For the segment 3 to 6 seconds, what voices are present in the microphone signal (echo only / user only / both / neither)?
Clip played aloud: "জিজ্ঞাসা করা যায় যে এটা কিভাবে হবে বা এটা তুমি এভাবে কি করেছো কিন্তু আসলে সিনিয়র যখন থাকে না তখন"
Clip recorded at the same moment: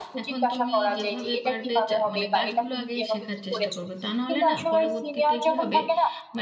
both